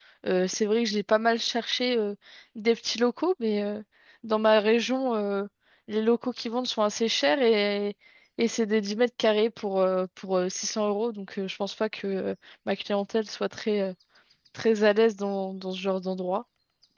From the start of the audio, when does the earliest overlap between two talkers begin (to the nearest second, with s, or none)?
none